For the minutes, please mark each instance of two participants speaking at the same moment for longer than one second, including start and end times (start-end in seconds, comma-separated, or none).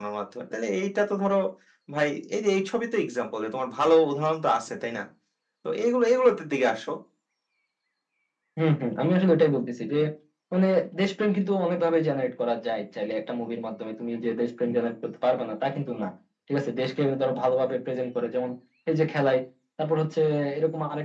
none